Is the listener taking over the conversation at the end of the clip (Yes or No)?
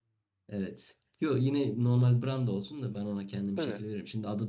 No